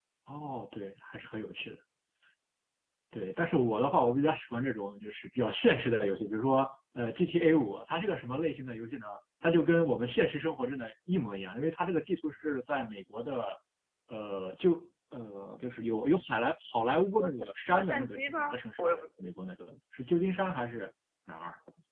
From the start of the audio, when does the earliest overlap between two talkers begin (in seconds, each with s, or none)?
17.2 s